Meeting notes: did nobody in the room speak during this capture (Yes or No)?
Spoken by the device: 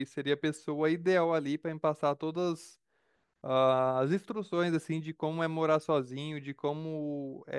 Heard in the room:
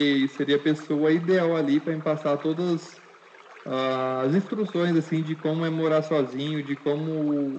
Yes